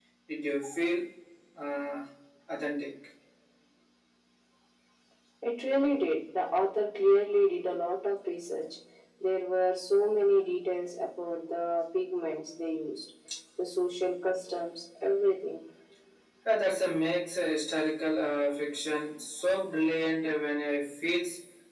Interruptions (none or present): none